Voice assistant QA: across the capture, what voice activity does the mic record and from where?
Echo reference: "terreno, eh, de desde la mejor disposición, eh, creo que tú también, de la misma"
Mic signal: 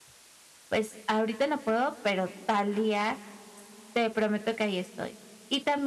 user only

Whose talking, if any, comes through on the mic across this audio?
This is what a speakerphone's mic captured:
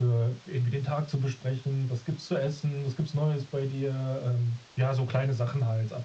echo only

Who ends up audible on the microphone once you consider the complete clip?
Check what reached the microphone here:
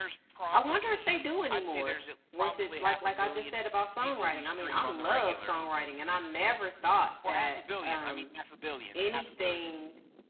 both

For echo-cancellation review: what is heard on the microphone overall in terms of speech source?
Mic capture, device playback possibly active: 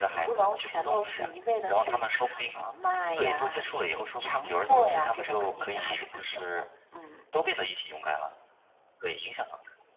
echo only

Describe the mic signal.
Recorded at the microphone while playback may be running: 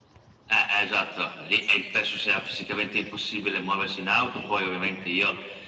echo only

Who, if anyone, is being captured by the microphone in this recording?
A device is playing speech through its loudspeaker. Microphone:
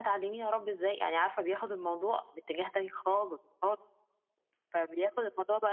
echo only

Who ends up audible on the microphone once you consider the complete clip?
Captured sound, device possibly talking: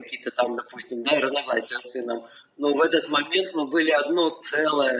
echo only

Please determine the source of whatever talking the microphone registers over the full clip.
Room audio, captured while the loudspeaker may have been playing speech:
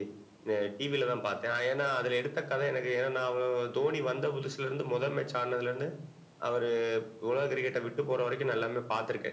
echo only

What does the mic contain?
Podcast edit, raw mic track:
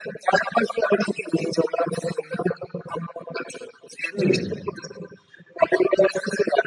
both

